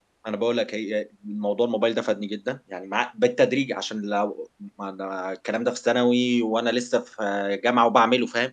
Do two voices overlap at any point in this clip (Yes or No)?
No